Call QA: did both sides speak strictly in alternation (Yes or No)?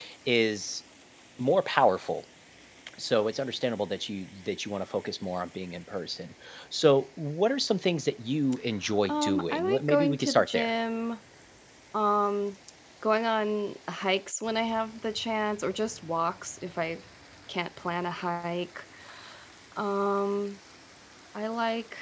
No